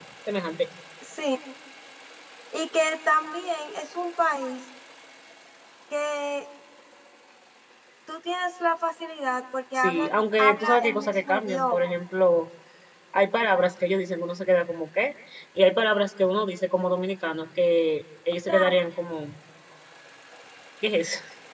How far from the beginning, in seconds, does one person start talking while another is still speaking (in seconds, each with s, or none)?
9.8 s